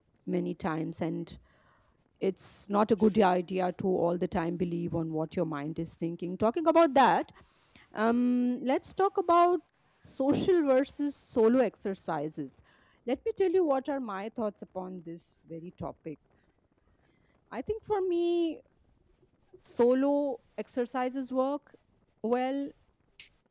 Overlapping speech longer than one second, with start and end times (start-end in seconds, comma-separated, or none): none